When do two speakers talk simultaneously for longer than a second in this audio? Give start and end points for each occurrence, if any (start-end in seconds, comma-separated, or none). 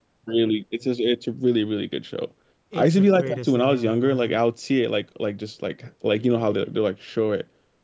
2.8-4.4